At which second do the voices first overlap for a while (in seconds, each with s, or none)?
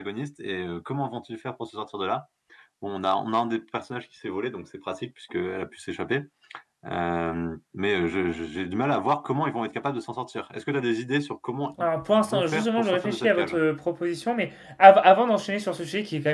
11.8 s